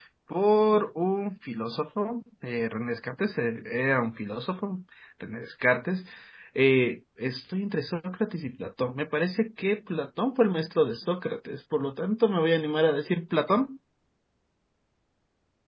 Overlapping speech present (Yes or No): No